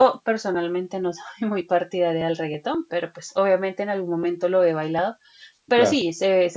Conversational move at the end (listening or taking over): listening